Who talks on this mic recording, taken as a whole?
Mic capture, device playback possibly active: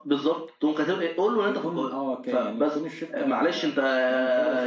echo only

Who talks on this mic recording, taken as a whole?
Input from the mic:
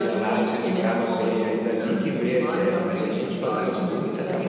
echo only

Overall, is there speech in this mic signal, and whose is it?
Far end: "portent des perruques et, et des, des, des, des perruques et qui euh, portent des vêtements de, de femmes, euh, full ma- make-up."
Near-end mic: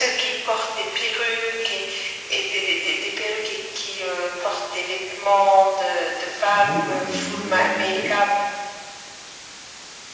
both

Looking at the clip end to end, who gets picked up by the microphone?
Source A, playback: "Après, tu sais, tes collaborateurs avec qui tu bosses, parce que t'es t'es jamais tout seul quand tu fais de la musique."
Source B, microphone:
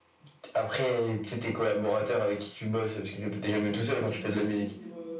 both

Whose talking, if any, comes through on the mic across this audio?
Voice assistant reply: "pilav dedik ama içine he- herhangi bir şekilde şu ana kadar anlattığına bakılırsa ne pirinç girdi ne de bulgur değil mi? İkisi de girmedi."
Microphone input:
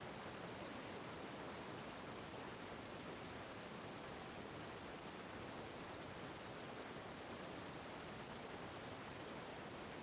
neither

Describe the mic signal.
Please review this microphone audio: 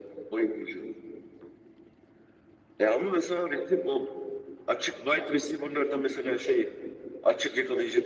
echo only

